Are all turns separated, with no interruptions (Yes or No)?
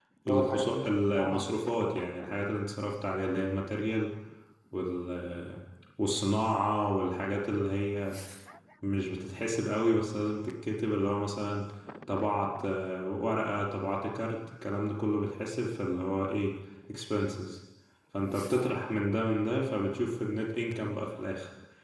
No